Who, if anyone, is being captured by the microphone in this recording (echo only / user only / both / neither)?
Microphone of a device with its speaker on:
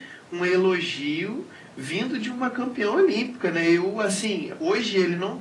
echo only